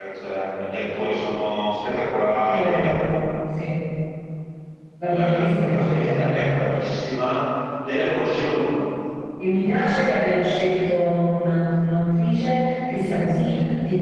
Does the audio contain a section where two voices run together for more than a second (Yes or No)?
Yes